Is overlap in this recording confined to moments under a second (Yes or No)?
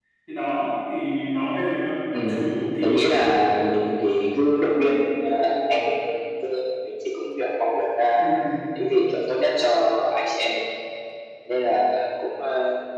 Yes